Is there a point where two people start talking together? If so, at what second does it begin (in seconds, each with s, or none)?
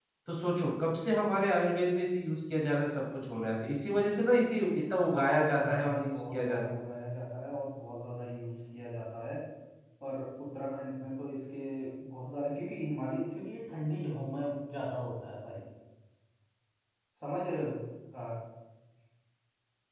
5.1 s